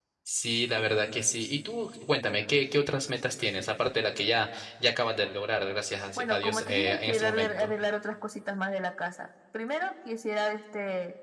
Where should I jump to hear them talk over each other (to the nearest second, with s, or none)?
6 s